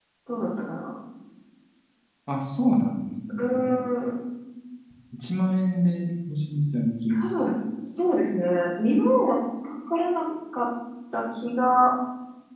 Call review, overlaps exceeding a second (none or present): none